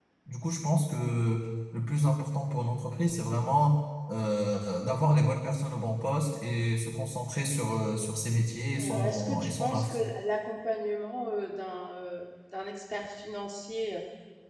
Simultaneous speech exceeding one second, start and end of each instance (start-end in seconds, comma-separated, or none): 8.8-10.0